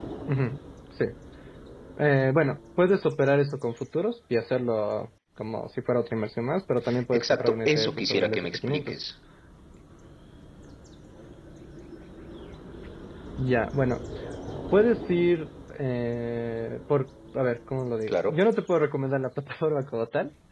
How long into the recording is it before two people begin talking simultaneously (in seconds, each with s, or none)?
7.1 s